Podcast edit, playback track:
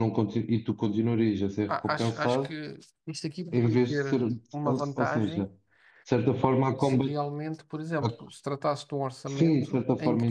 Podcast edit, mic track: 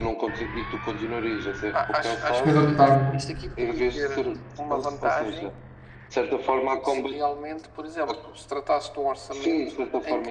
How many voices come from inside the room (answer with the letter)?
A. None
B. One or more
B